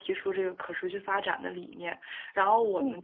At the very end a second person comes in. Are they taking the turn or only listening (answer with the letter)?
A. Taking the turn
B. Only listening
B